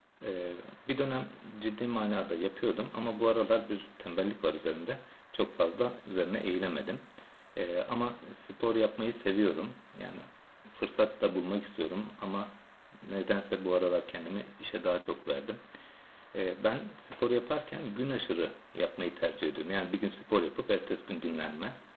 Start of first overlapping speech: none

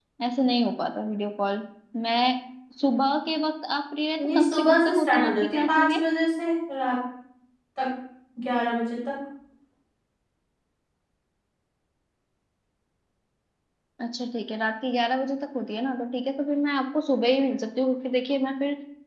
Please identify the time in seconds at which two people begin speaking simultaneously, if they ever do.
4.2 s

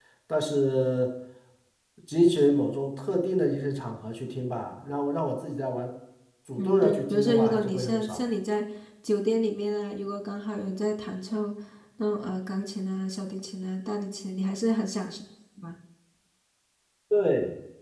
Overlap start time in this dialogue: 6.6 s

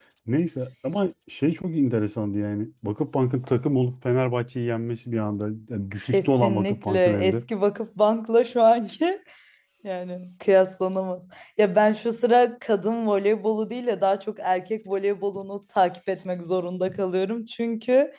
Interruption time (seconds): 6.0 s

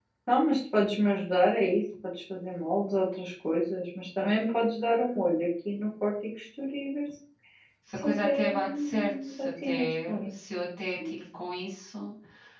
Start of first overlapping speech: 8.0 s

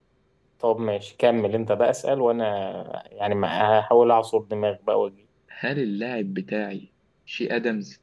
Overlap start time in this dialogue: none

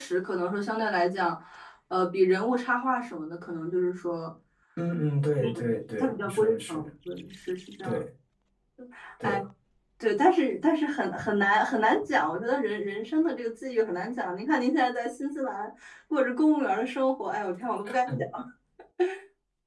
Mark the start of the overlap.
5.4 s

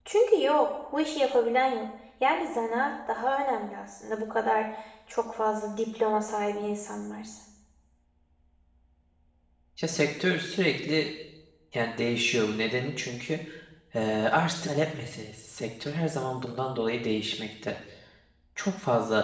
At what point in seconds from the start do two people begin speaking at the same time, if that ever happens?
none

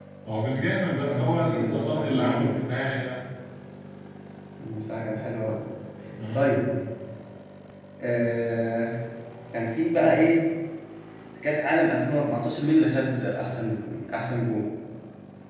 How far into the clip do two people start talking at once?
1.1 s

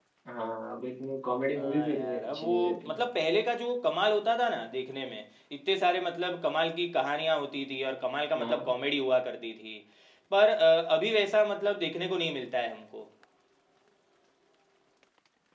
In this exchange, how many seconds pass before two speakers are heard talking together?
1.6 s

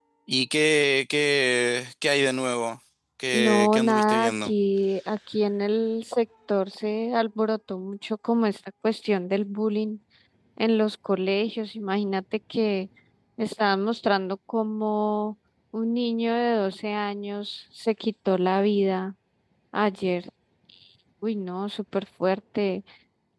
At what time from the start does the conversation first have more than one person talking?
3.3 s

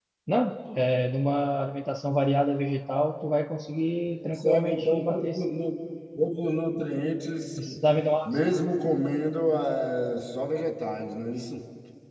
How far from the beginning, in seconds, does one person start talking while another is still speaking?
4.2 s

